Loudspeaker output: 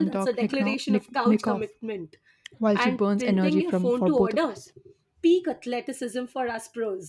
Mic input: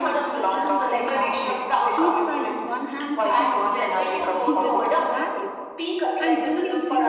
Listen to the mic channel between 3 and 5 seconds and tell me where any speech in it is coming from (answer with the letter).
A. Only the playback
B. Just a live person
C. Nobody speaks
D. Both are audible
D